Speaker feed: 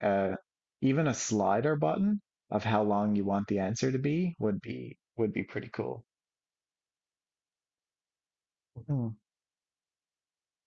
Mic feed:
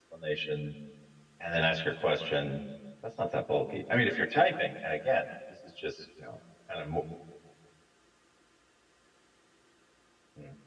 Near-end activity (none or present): present